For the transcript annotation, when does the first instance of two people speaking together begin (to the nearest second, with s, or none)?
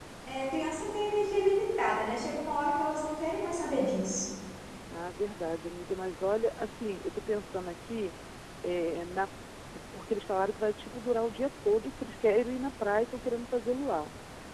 none